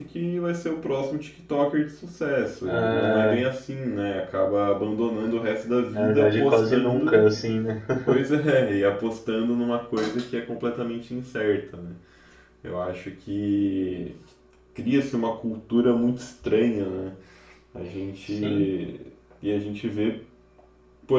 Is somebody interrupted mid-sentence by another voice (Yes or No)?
Yes